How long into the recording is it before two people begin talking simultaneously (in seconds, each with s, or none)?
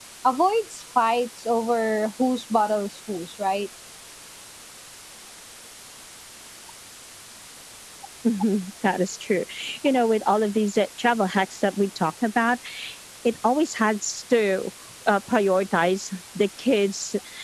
none